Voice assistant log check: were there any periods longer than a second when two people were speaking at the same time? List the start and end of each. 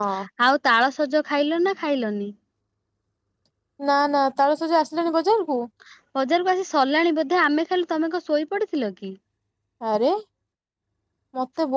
none

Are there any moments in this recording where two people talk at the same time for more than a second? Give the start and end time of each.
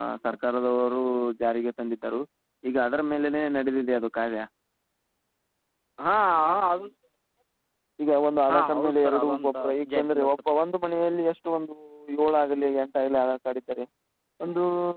8.5-10.3

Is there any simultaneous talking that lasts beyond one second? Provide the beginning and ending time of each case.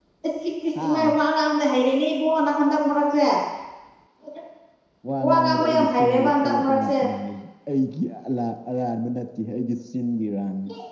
5.2-6.9

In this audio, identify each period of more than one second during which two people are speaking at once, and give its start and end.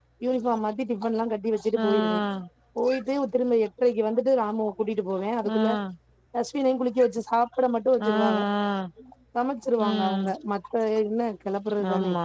none

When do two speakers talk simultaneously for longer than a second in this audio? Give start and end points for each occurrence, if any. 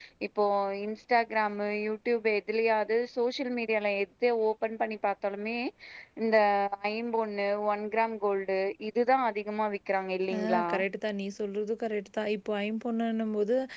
none

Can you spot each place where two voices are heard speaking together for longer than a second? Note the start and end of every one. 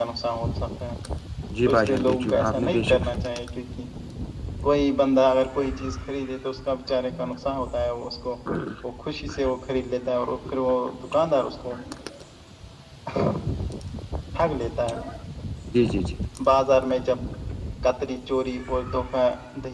1.6-3.0

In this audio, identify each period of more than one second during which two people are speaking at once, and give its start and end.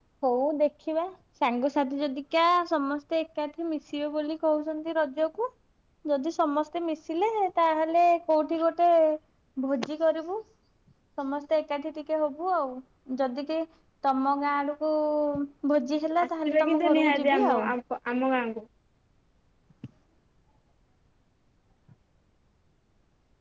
16.4-17.6

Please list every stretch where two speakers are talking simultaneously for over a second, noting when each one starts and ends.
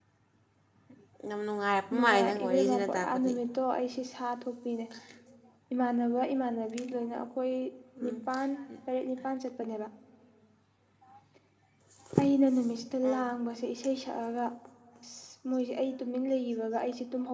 1.9-3.3

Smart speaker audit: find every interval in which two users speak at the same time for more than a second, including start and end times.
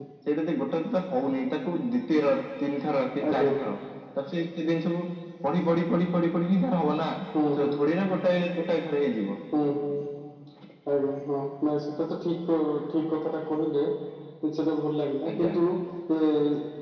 none

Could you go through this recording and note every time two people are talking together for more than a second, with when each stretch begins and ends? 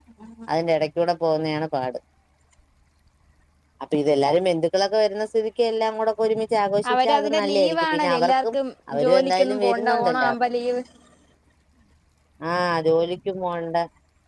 6.9-8.5, 9.0-10.3

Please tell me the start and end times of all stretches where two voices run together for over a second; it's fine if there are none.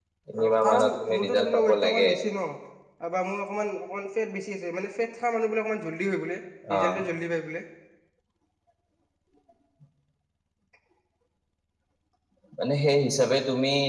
0.6-2.1

